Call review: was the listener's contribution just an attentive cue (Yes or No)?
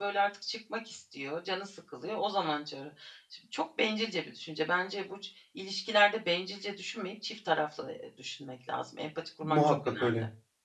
No